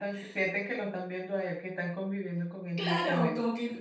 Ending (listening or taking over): taking over